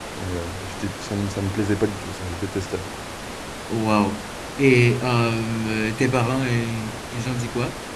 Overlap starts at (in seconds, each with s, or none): none